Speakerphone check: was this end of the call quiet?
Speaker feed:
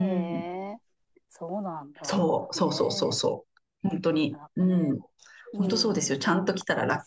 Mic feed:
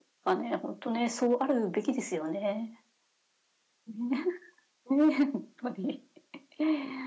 No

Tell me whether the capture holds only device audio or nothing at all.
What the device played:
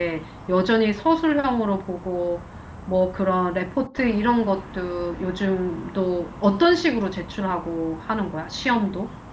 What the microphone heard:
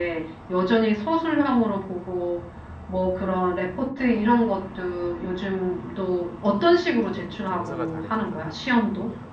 No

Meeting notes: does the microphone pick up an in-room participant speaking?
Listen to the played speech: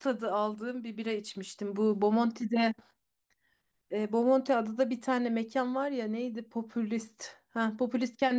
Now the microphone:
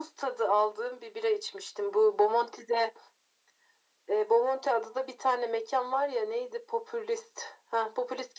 No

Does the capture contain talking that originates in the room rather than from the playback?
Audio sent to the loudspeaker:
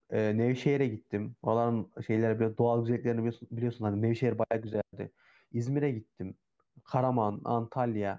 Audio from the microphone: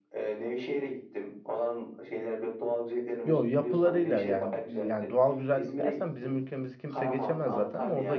Yes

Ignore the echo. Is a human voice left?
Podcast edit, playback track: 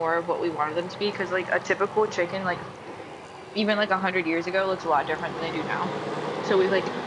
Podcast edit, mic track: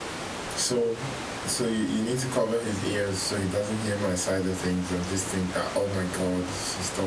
Yes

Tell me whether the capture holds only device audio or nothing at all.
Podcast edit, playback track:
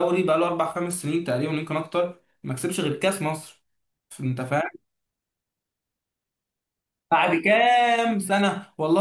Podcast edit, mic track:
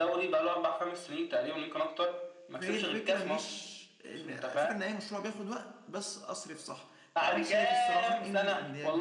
No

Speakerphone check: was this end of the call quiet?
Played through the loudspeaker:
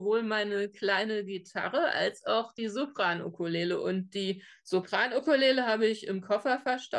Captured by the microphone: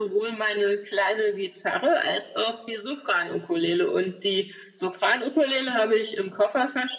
Yes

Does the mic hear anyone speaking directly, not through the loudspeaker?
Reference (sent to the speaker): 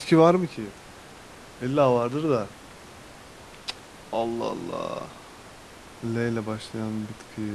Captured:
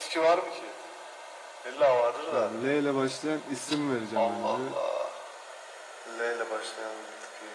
Yes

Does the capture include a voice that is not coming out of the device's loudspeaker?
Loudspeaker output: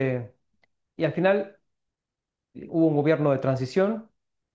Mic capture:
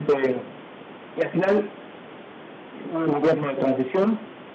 No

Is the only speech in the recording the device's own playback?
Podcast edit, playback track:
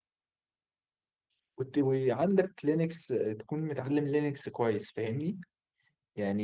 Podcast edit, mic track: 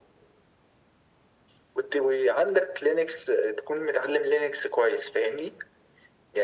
Yes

